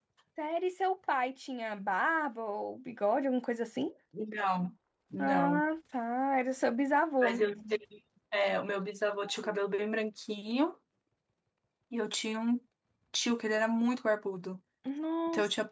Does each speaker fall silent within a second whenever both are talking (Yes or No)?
Yes